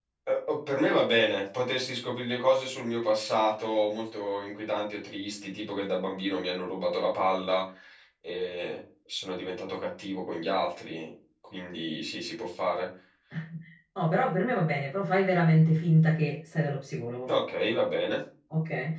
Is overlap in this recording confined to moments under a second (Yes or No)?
Yes